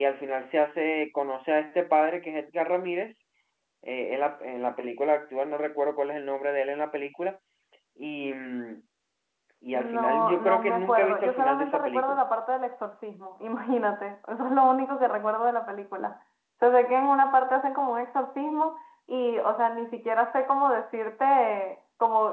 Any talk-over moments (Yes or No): Yes